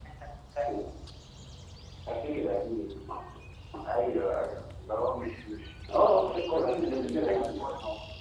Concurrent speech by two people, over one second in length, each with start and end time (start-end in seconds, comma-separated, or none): 6.2-7.6